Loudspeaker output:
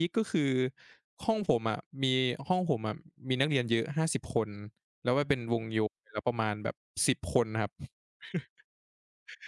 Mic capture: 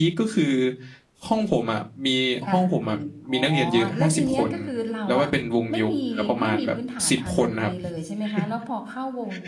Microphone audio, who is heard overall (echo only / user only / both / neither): both